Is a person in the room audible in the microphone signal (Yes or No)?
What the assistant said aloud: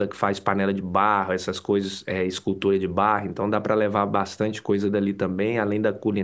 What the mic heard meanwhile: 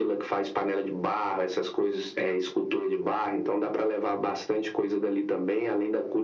No